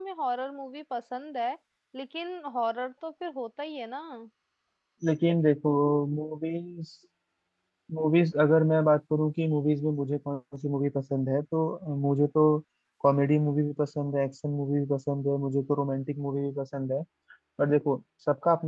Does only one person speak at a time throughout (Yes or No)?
Yes